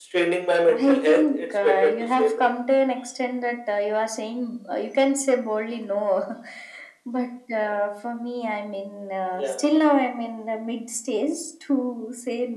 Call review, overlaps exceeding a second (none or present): present